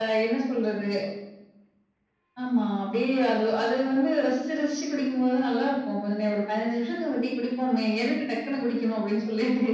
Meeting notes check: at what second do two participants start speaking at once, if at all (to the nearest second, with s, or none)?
none